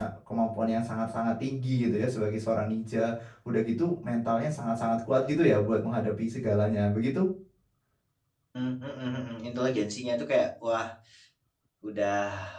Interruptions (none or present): none